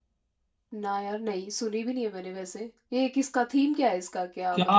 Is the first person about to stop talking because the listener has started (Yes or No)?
Yes